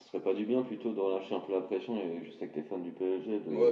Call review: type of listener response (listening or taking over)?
taking over